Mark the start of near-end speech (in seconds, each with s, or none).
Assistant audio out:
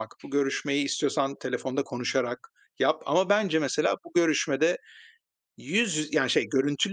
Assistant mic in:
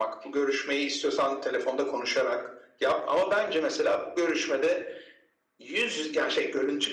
none